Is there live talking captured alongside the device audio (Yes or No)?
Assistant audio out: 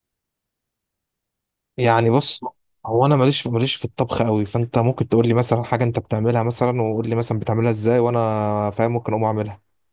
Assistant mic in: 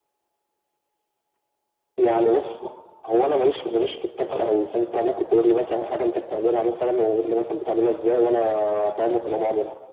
No